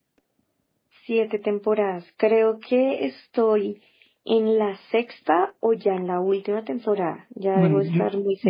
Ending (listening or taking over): taking over